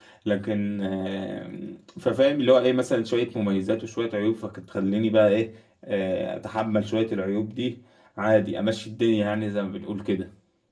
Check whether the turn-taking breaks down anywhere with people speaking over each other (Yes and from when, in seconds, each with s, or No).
No